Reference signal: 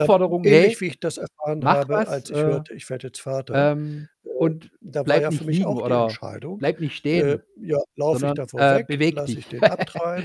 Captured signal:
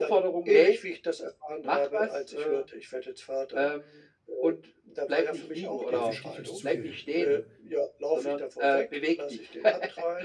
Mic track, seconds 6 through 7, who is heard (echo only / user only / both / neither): both